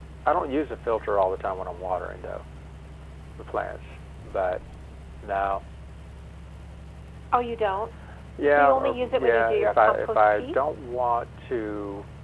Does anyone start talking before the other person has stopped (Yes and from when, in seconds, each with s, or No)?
Yes, from 8.5 s